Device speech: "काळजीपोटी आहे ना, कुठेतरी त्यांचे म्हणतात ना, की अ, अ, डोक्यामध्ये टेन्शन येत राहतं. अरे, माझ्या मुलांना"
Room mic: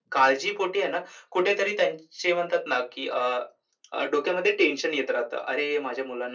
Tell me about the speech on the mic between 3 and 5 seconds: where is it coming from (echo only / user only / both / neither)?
echo only